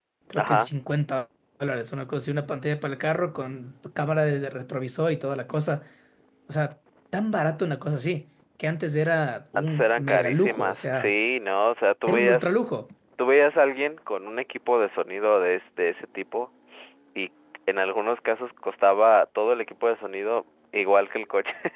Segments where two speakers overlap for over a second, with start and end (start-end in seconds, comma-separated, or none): 9.6-11.1